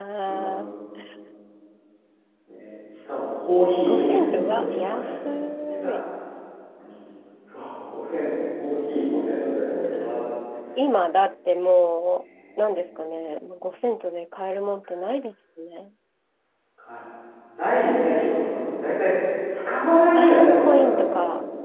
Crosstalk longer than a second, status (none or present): present